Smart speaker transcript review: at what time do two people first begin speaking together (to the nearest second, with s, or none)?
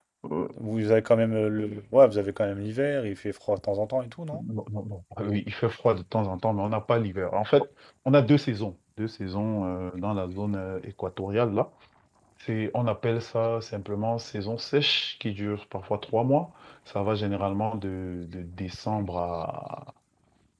none